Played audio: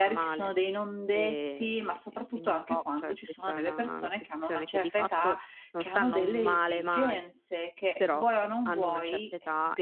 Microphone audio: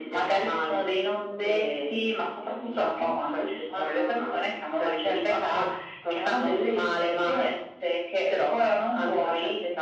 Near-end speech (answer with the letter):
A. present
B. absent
B